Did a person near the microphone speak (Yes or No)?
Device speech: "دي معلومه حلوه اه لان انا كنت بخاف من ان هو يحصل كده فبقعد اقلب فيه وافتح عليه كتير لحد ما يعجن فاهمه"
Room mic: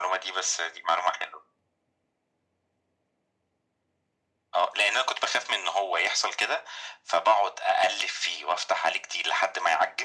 No